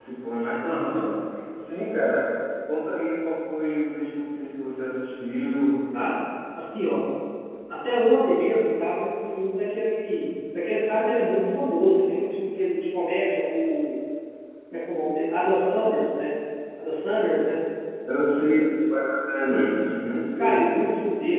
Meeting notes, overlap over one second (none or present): none